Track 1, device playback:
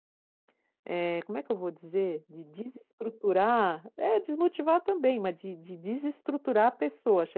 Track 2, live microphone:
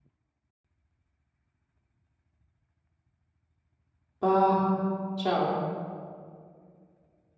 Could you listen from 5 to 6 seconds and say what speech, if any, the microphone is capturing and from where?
user only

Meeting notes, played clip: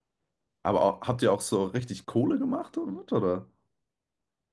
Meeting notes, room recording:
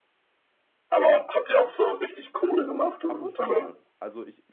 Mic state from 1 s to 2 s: echo only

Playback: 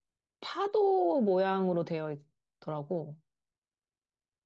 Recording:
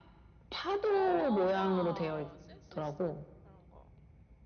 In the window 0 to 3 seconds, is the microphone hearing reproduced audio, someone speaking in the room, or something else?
both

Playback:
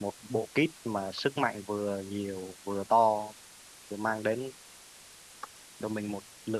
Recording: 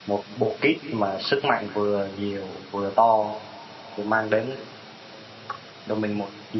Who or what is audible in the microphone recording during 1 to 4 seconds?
echo only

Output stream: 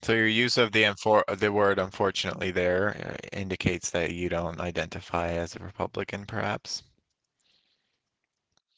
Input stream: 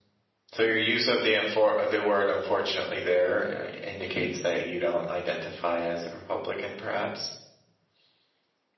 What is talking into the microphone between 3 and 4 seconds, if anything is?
echo only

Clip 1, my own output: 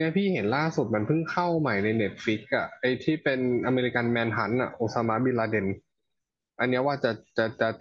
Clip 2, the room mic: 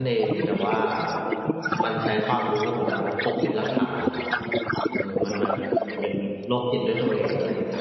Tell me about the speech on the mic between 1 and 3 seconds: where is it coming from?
both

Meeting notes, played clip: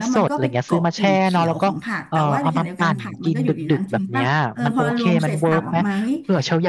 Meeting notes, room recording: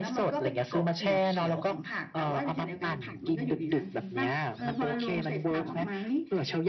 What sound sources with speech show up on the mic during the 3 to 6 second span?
echo only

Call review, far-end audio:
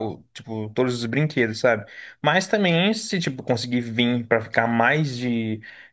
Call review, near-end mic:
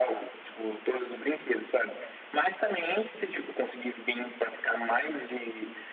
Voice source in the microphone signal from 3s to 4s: echo only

